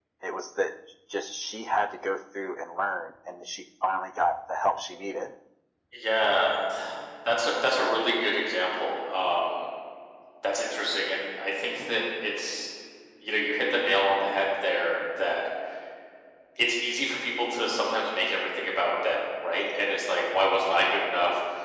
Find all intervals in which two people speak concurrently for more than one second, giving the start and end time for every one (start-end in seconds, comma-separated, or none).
none